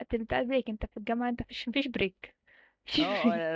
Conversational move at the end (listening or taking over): taking over